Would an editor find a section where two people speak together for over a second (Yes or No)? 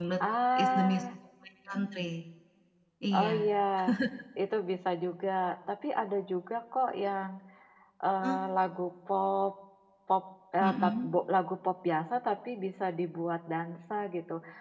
No